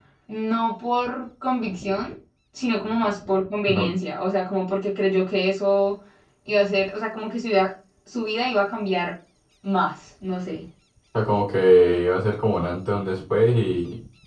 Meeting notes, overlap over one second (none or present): none